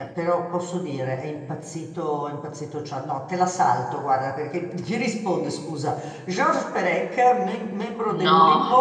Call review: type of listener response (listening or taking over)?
listening